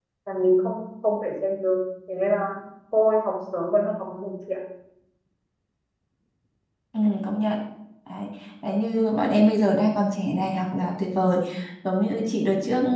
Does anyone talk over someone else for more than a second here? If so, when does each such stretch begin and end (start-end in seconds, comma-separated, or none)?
none